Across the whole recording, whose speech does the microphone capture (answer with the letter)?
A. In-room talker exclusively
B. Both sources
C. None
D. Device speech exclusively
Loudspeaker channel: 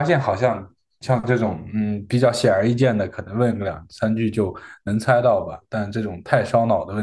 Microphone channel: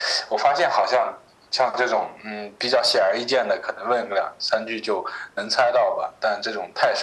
D